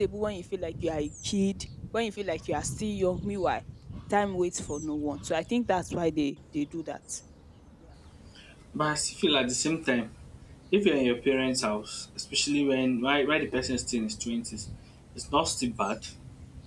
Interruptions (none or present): none